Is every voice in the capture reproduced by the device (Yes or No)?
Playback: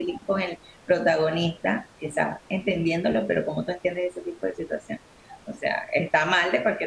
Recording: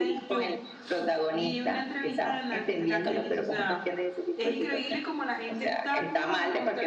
No